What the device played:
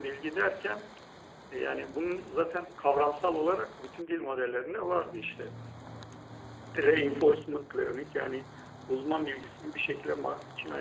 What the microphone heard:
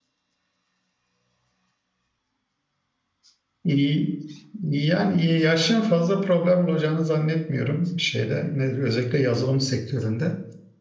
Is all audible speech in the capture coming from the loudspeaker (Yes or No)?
No